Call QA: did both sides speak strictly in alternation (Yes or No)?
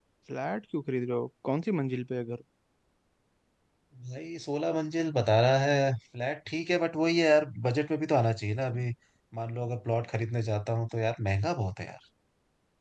Yes